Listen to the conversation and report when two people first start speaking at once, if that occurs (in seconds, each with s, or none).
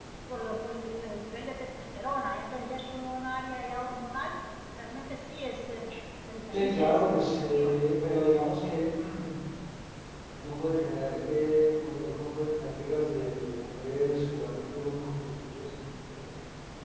6.5 s